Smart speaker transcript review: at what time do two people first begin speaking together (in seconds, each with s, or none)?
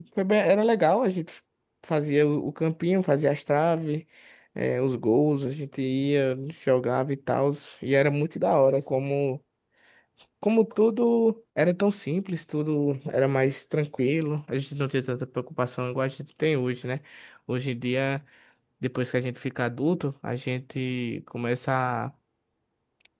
none